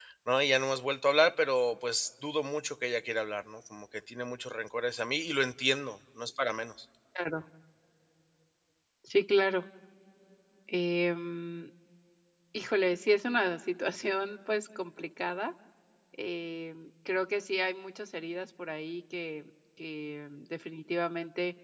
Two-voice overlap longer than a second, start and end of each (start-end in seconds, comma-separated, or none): none